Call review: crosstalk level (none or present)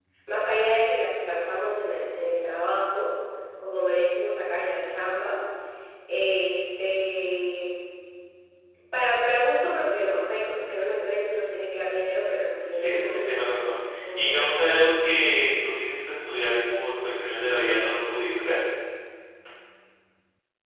present